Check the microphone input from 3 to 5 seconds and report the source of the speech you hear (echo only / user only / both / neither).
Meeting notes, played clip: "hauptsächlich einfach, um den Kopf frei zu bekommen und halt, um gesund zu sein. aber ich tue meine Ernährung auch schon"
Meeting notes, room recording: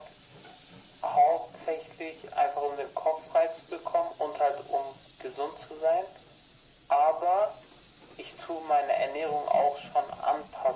echo only